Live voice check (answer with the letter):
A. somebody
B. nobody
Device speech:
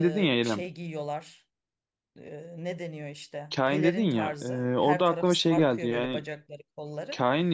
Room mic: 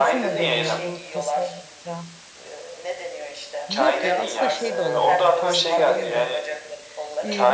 A